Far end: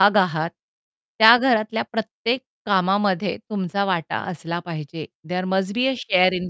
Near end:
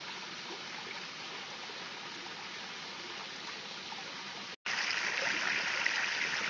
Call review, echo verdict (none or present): none